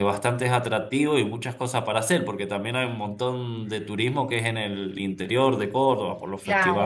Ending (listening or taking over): taking over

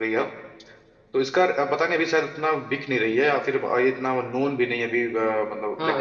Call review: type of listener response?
taking over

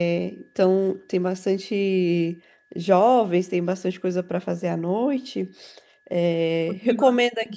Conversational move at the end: taking over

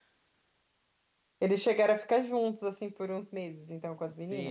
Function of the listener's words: taking over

